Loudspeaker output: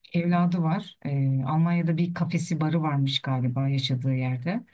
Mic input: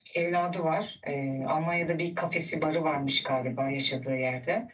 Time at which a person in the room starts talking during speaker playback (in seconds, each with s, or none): none